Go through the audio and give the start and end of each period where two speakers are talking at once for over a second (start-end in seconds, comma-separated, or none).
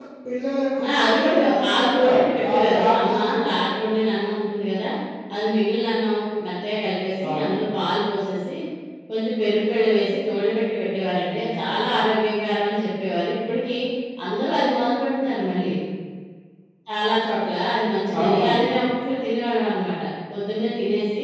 1.0-3.4